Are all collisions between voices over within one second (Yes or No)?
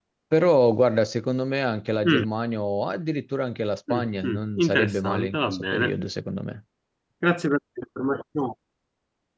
No